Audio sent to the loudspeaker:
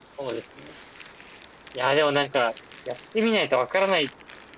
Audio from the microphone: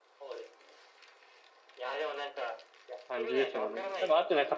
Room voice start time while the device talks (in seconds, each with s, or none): 3.0 s